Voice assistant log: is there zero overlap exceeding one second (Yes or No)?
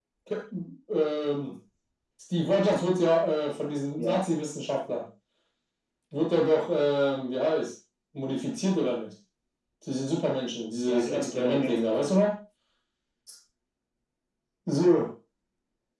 No